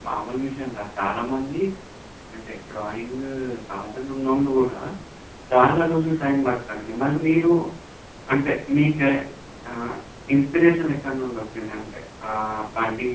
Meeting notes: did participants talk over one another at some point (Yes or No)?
No